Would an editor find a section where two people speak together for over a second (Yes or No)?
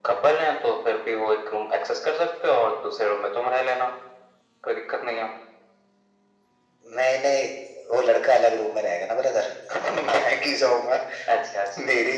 No